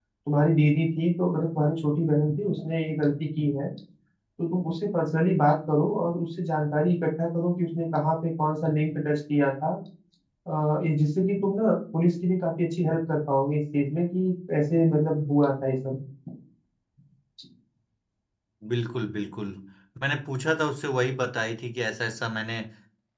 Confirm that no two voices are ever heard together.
Yes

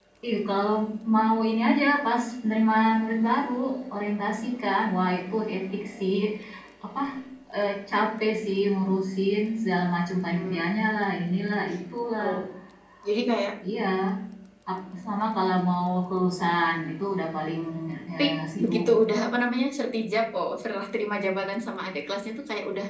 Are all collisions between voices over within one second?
Yes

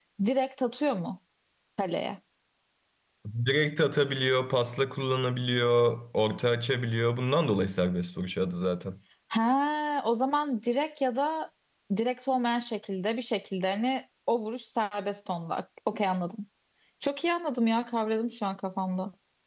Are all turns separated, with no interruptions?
Yes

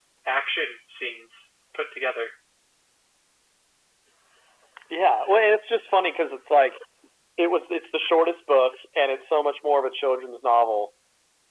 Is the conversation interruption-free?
Yes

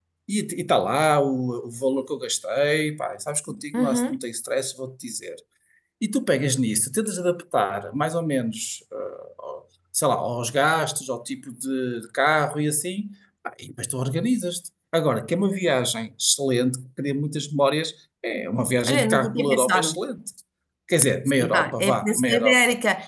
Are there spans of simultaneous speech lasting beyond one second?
Yes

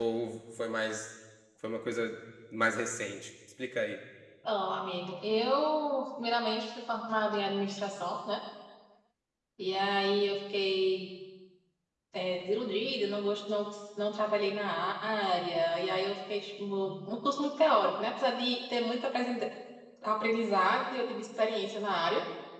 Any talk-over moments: No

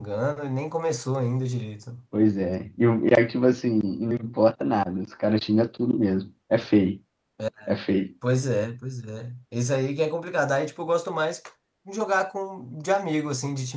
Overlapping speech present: No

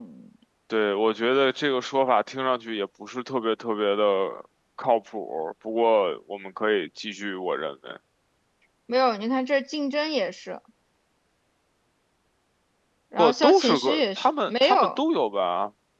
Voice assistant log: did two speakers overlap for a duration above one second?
Yes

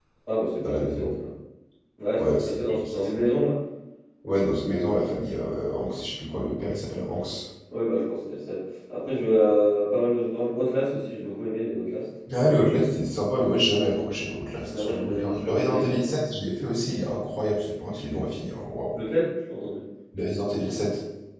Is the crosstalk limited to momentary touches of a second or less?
No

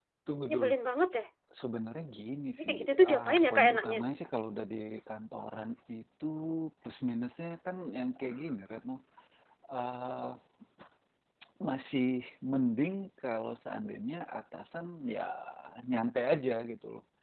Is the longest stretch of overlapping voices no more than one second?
No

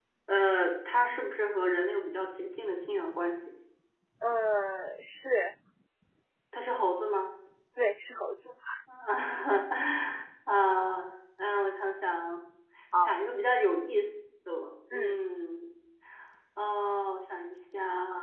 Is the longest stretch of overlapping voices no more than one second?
Yes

